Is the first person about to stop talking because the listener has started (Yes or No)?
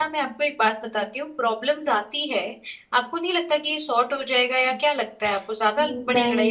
Yes